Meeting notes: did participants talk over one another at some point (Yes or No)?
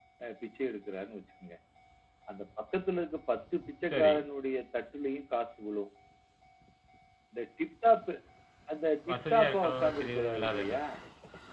Yes